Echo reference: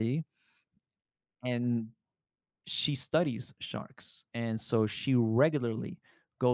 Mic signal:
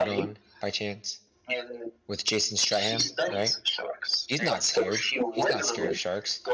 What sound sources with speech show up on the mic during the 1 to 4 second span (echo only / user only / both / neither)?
both